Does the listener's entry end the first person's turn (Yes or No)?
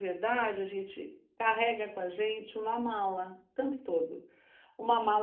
No